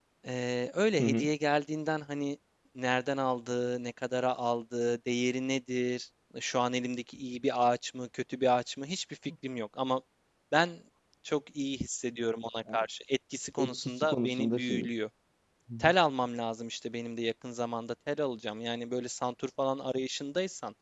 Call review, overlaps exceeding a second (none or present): present